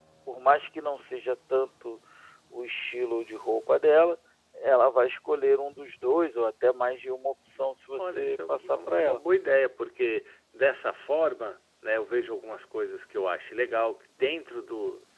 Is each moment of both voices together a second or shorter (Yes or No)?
No